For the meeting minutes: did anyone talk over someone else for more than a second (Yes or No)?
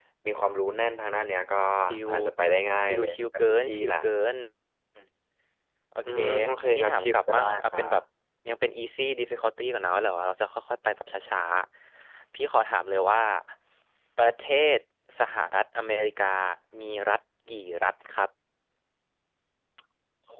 Yes